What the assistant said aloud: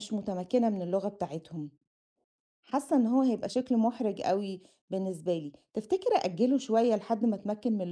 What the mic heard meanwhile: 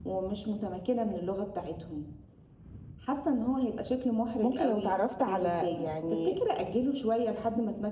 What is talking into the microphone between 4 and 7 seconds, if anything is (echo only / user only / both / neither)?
both